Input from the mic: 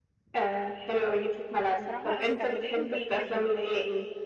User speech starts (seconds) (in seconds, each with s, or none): 1.8 s